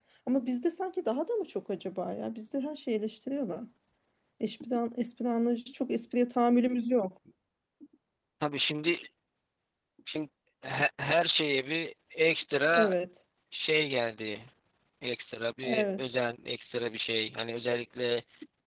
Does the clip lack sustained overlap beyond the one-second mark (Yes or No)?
Yes